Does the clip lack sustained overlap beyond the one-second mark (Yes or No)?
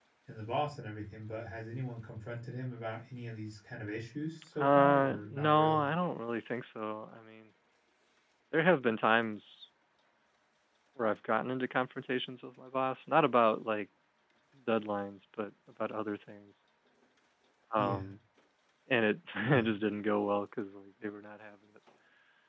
No